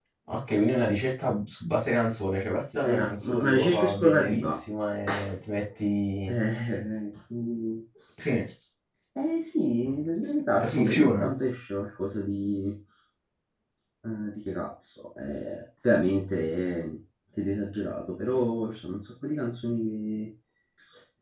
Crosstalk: present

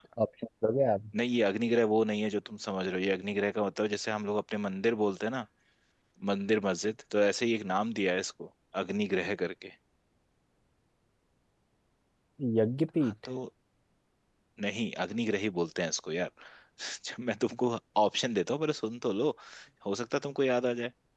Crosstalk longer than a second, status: none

